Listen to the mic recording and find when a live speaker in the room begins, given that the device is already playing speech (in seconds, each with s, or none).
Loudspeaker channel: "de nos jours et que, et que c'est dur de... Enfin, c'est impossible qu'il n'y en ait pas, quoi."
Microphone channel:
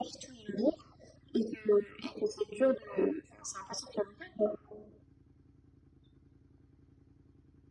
none